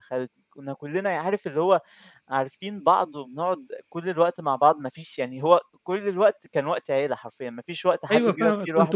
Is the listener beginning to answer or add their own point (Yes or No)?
Yes